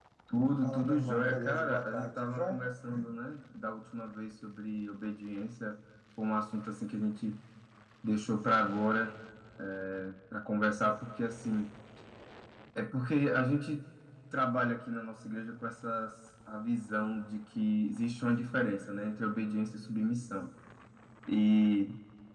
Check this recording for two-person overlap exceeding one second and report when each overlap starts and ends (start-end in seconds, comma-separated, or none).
0.6-2.6